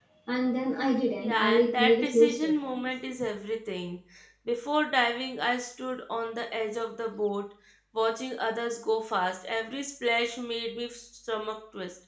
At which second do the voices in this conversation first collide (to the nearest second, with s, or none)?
1 s